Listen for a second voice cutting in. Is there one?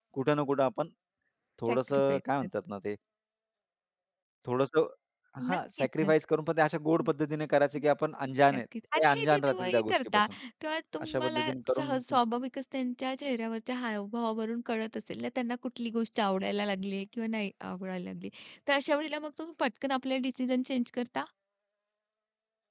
Yes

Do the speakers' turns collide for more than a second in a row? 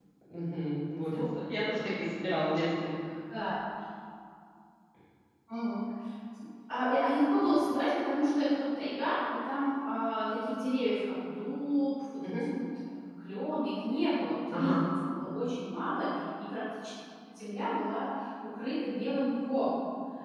No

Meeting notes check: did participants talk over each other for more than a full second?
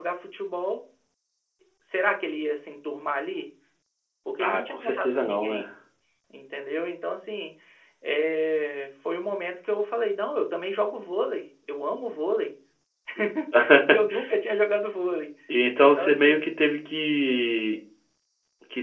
Yes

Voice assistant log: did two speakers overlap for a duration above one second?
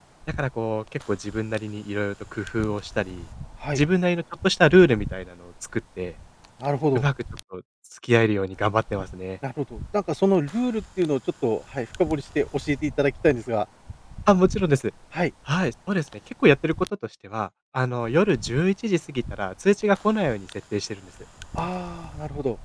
No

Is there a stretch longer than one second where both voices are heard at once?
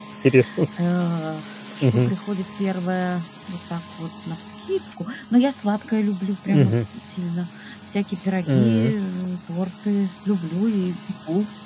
No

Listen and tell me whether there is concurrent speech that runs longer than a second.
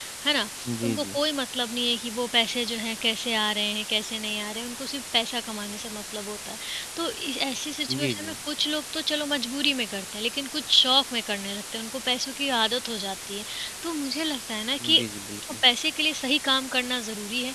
No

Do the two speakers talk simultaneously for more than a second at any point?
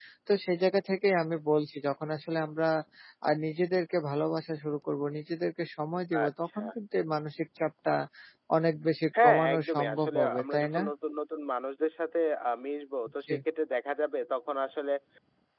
Yes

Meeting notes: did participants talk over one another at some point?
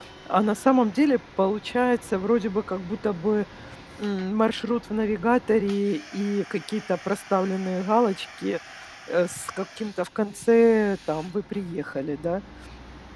No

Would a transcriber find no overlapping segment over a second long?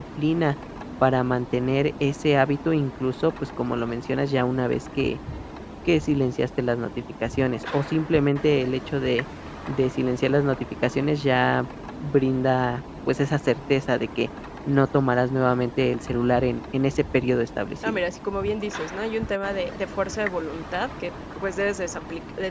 Yes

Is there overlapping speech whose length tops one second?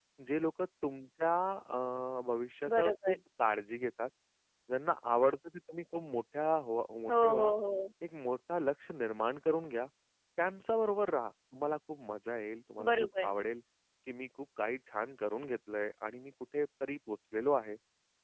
No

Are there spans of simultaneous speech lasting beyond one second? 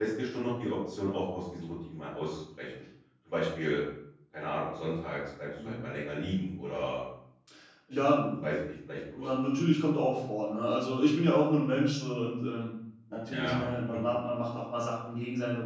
No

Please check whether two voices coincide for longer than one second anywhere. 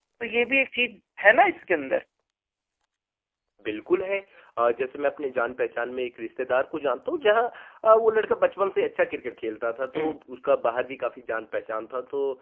No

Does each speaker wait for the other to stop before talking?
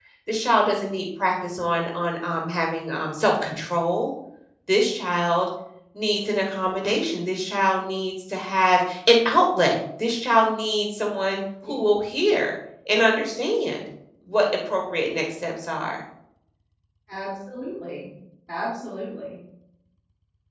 Yes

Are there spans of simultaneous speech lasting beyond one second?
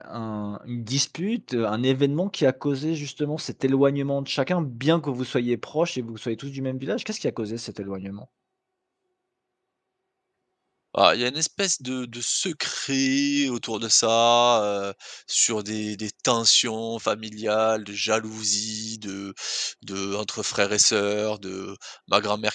No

